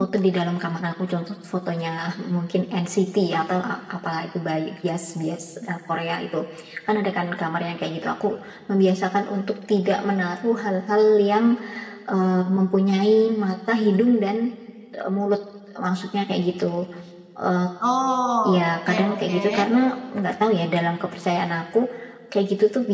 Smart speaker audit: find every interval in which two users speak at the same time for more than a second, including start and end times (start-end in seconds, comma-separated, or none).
18.4-19.7